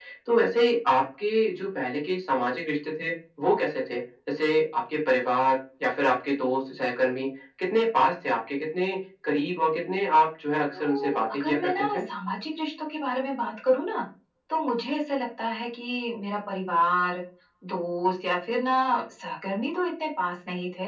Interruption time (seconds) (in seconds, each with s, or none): 10.7 s